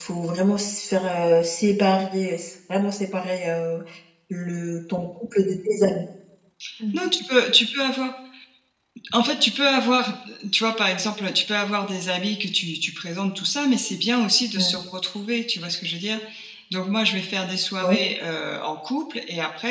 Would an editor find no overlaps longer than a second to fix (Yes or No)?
Yes